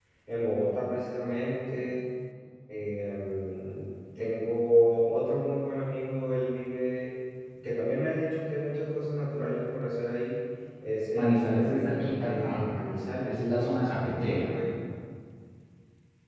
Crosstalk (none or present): present